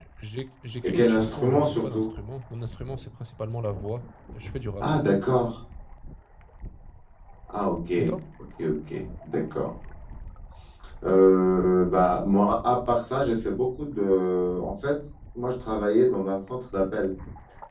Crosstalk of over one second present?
Yes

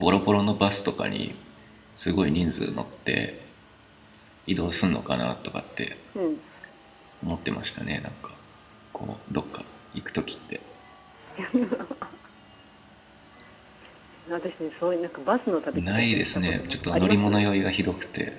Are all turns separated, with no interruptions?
No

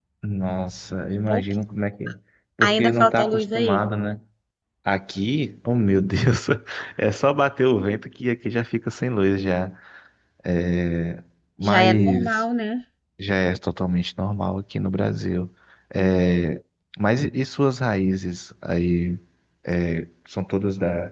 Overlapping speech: Yes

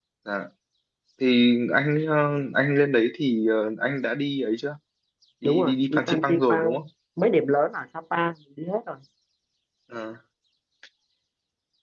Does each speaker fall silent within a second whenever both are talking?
No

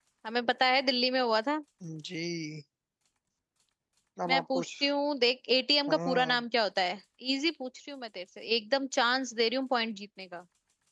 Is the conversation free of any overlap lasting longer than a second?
Yes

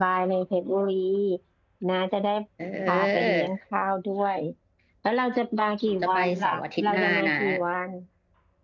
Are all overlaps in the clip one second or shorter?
No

